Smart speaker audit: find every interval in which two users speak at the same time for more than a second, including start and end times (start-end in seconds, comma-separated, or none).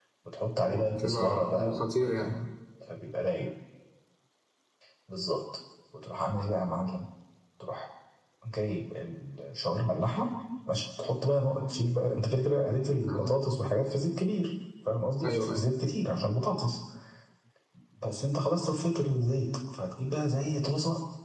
0.6-2.4